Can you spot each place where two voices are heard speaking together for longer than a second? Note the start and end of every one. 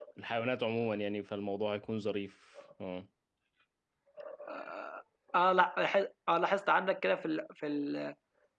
none

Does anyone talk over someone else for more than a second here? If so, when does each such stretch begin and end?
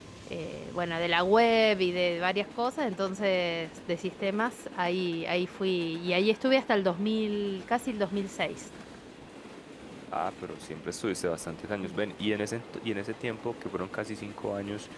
none

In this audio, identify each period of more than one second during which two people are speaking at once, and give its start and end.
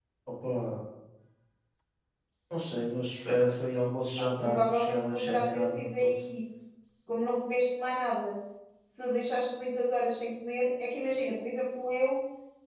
4.2-6.1

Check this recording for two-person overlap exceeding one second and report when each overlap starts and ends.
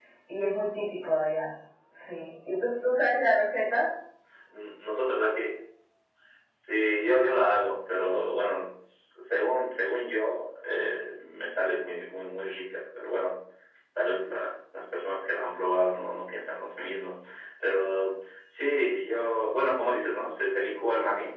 none

